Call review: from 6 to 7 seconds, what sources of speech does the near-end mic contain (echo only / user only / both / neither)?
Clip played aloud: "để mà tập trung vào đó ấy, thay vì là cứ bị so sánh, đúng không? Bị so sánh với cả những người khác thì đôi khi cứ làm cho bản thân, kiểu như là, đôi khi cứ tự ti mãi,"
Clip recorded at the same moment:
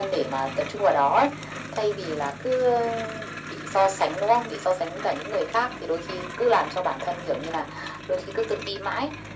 echo only